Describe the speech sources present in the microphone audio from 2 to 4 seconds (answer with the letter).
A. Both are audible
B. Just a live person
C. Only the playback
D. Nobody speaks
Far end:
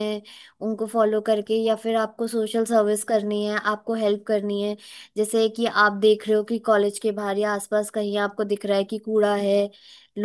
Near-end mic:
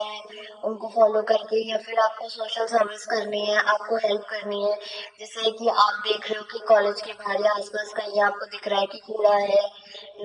C